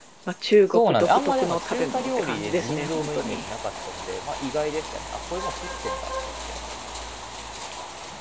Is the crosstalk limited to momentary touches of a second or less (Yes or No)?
No